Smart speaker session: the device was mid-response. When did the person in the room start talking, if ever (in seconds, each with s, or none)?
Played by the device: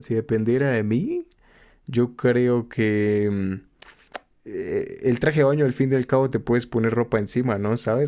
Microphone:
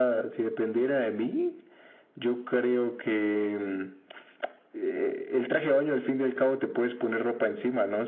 none